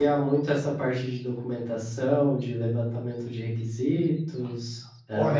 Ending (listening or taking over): taking over